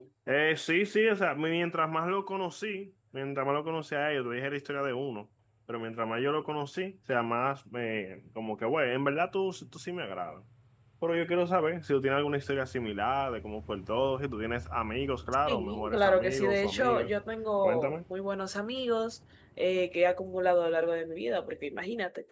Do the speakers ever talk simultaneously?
Yes, from 15.4 s

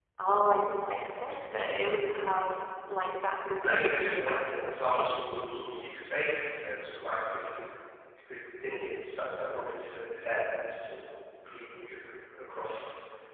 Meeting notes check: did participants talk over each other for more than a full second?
Yes, from 3.6 s

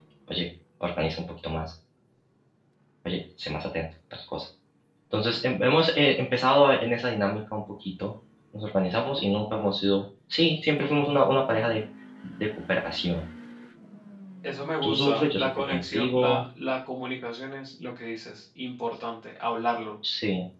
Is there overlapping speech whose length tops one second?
Yes, from 14.8 s

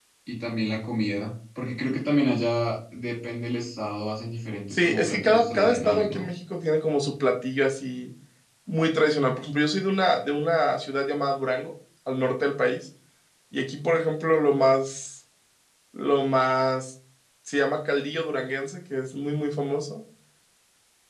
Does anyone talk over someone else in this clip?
Yes, from 4.7 s

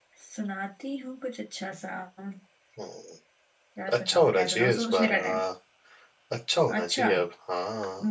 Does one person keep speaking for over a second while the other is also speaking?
Yes, from 4.0 s

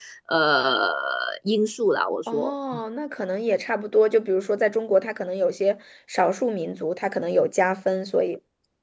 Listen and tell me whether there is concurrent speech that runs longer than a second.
No

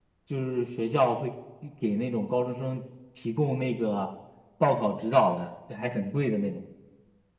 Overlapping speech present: No

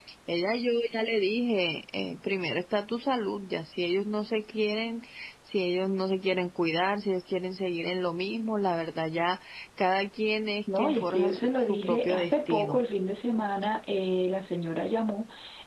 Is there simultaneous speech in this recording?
Yes, from 10.7 s

